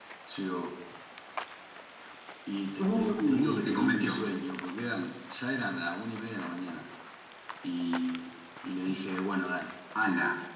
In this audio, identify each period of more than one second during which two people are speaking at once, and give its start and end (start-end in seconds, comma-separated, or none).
2.8-4.2